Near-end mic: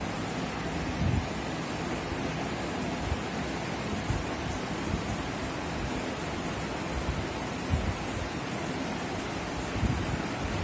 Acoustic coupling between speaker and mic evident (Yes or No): No